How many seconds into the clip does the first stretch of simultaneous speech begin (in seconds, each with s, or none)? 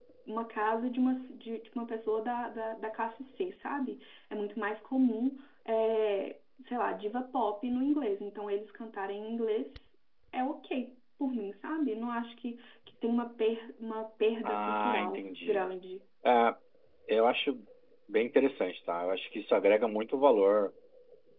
14.4 s